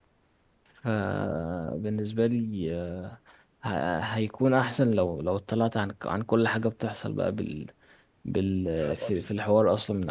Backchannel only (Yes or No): Yes